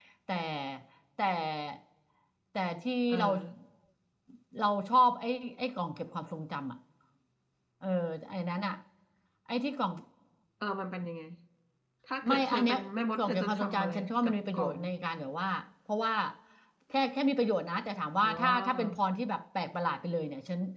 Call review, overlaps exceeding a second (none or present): present